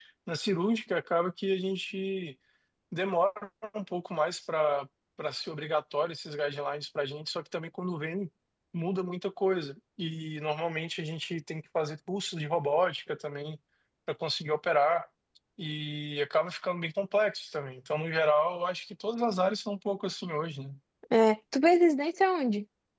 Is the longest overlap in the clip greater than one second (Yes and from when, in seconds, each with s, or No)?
No